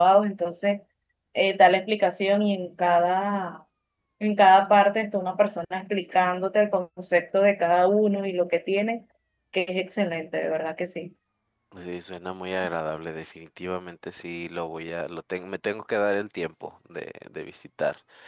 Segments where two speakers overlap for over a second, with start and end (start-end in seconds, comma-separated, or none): none